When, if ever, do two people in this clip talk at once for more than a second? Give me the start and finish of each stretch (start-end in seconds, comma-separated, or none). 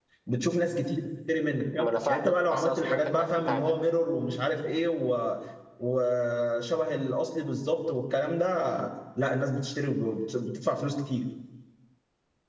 1.8-3.7